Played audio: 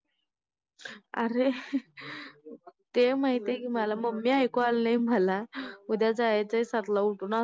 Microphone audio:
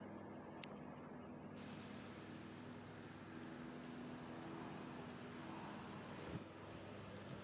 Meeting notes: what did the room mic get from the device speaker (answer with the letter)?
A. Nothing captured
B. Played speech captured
A